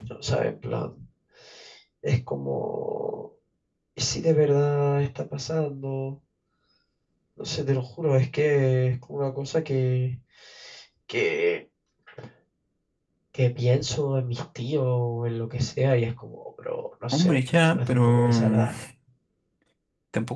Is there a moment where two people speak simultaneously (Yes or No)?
Yes